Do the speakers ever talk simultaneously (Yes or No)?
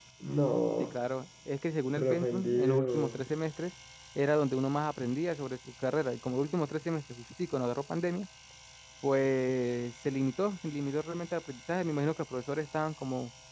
Yes